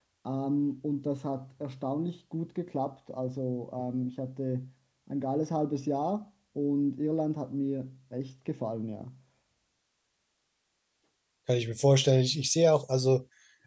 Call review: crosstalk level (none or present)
none